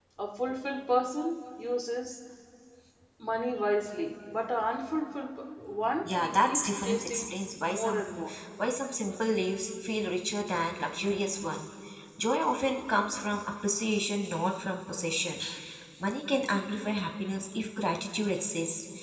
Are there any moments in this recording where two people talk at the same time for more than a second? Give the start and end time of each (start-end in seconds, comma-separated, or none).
6.0-7.3